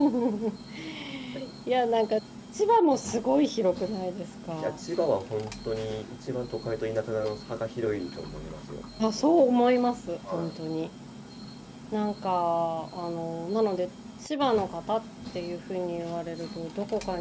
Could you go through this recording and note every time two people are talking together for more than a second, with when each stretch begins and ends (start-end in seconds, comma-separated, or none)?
none